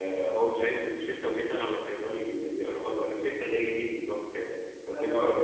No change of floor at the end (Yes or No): Yes